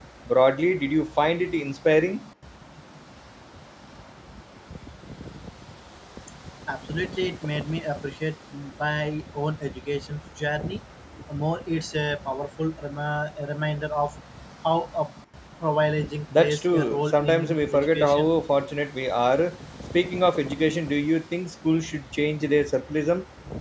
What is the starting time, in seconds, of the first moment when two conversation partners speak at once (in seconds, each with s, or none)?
16.4 s